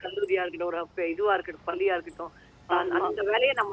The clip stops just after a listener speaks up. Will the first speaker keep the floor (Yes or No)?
Yes